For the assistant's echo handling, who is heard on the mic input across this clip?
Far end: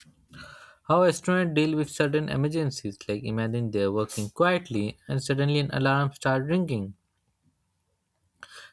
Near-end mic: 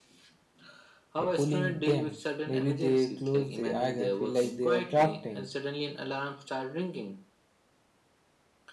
both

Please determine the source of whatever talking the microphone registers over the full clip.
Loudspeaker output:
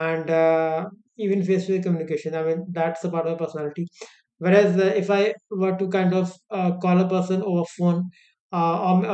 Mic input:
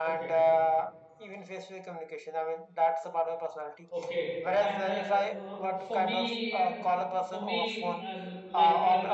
both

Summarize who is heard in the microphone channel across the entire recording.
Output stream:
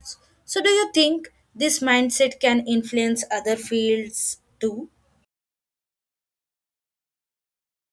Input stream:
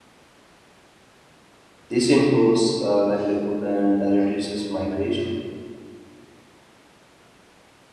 user only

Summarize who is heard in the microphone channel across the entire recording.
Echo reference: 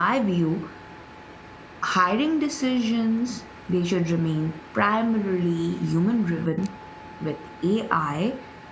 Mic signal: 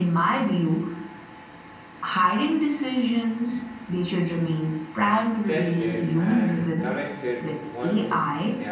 both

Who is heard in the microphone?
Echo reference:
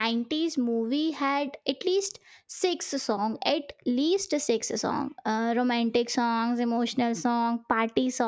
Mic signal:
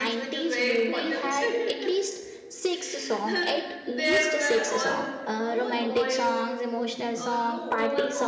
both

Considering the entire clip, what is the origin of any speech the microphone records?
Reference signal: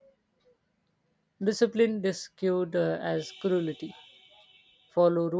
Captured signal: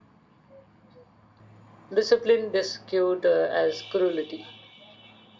echo only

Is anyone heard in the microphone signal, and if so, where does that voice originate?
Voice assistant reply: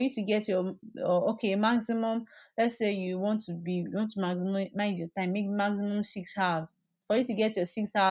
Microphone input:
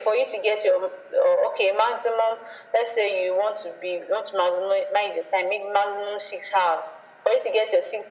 echo only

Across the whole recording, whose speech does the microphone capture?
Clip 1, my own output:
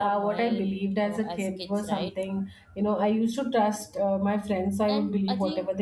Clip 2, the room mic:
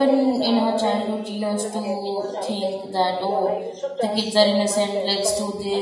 both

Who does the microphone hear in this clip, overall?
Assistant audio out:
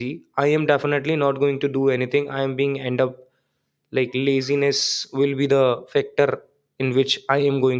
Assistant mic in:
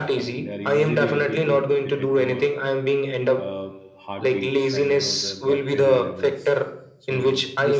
both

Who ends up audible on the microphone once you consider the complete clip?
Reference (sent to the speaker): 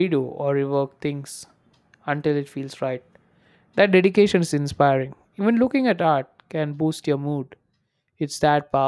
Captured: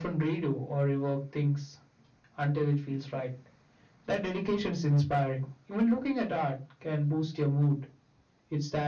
echo only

